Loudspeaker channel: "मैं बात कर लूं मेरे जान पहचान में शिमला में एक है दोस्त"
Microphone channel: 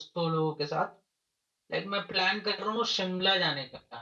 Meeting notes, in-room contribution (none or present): present